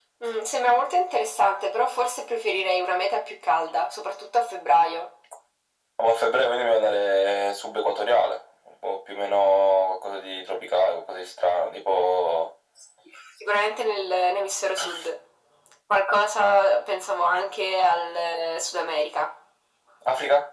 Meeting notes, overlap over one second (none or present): none